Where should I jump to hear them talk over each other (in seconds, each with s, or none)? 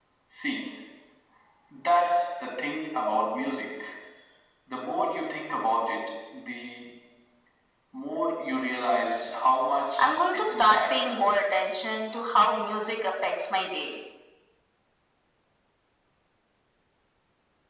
10.0 s